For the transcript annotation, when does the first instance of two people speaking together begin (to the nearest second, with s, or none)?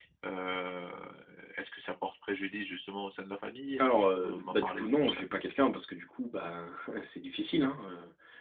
4 s